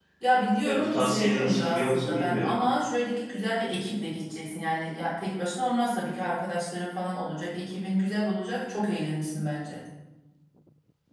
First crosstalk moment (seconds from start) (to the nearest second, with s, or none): 1 s